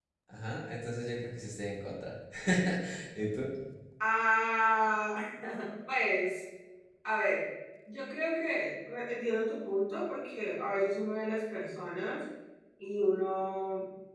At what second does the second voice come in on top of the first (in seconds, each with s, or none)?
none